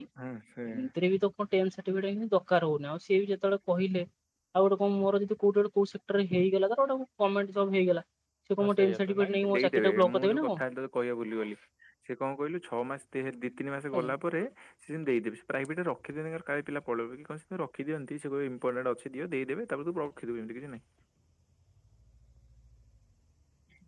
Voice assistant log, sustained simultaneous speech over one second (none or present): present